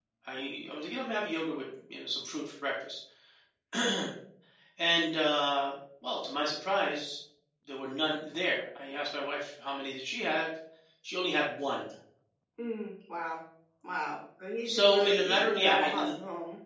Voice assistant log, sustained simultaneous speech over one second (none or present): present